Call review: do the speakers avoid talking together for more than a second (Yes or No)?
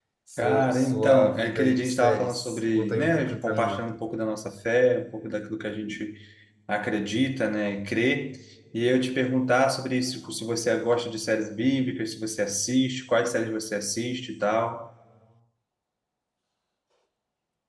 No